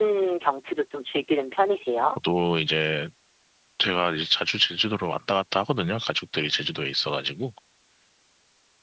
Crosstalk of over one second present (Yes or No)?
No